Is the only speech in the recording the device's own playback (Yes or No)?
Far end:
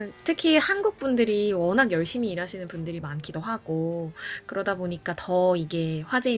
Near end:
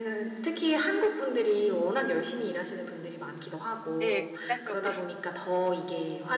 No